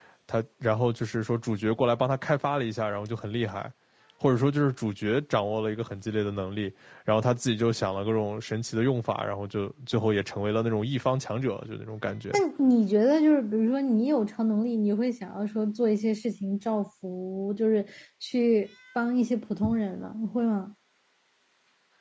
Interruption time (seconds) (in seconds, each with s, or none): none